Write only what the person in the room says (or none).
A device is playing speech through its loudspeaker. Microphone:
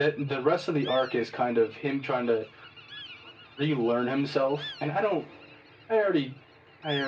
none